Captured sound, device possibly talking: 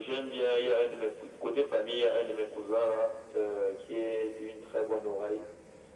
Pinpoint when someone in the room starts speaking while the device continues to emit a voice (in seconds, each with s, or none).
none